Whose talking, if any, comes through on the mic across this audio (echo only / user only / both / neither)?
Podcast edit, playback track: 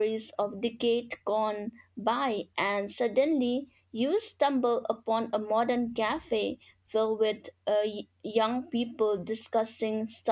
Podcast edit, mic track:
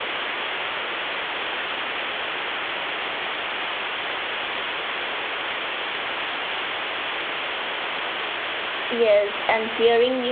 user only